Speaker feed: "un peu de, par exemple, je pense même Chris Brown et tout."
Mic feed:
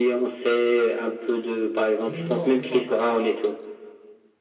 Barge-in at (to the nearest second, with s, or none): 2 s